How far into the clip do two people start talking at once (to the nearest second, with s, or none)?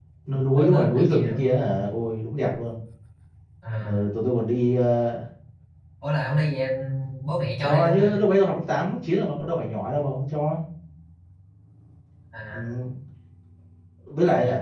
1 s